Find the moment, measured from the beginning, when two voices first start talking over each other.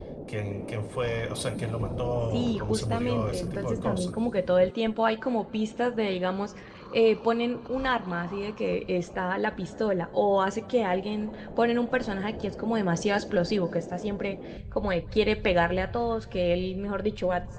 2.3 s

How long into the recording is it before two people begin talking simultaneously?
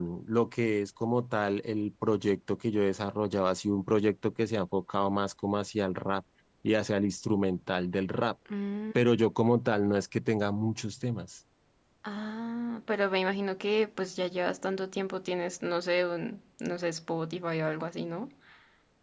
none

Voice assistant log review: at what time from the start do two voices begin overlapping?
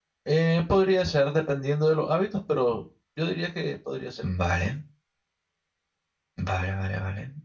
none

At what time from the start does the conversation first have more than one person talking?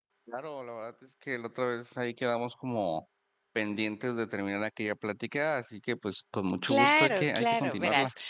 6.7 s

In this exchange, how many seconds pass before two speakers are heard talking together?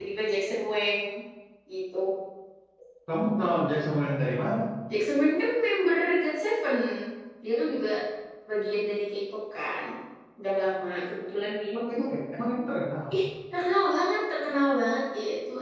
none

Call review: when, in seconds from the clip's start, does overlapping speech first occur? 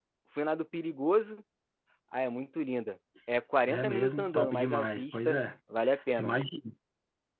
3.7 s

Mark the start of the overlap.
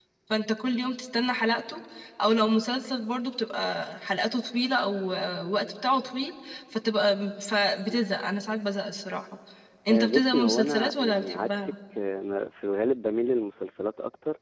9.9 s

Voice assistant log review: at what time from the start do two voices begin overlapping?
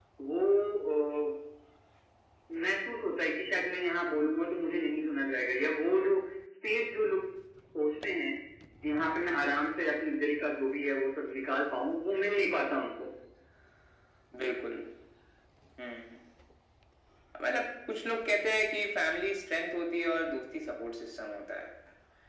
none

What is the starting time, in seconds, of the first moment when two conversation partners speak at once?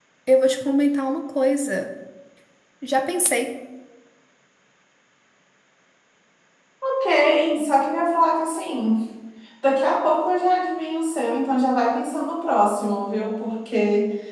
none

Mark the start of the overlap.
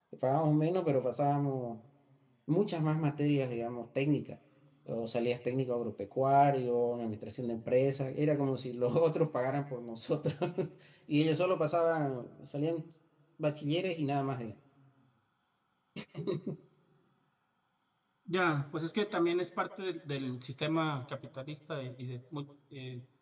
none

